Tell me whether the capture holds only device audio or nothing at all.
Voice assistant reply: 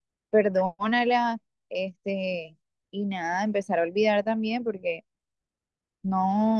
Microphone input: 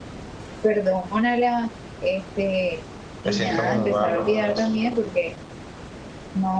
No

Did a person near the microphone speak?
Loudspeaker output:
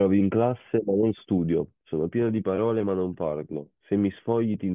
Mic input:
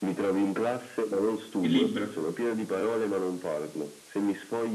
Yes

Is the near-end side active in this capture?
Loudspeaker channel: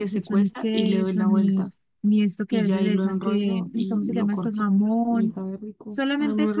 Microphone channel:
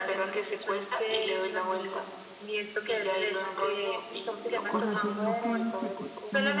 Yes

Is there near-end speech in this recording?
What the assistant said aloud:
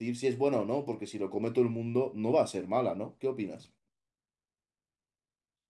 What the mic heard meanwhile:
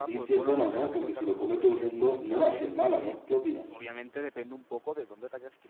Yes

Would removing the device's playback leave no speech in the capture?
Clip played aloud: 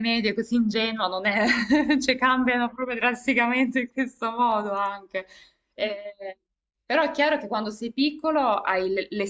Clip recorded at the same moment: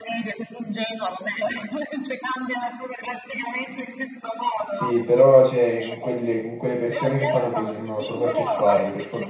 No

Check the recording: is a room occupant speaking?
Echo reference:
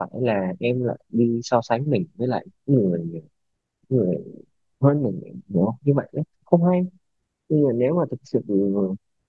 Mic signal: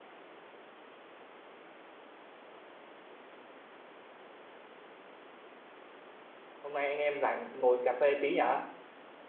Yes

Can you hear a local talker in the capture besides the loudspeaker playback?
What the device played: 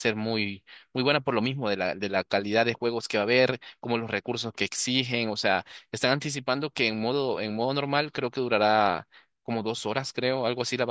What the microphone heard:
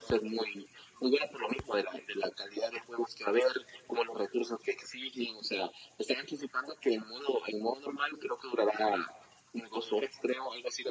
No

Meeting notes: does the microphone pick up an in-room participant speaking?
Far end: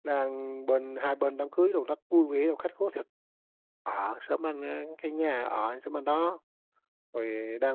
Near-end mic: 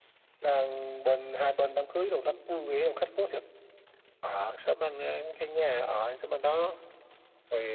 No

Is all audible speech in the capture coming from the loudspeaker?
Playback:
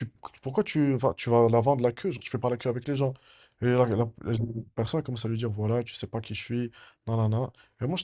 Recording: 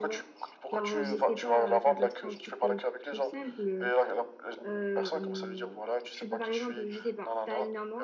No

